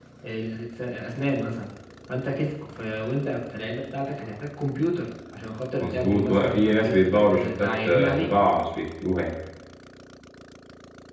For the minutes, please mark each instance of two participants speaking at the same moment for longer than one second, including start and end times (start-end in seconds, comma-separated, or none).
5.8-8.3